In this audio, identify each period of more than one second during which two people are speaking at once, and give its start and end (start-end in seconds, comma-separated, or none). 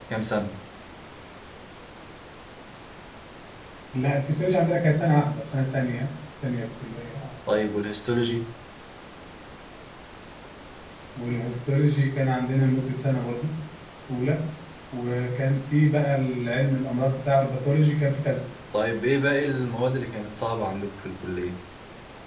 none